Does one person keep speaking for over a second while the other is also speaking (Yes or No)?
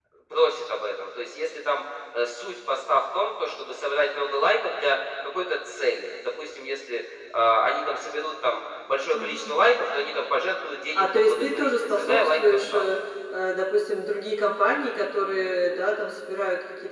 Yes